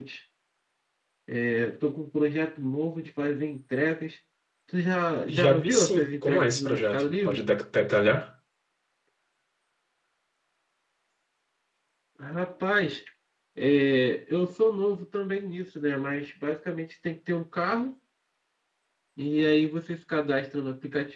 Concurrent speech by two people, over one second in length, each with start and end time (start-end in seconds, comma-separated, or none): 5.3-7.5